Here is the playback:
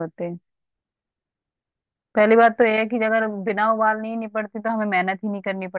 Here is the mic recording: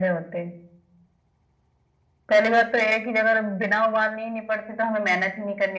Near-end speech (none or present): none